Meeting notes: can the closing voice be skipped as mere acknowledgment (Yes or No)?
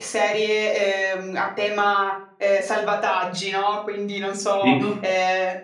Yes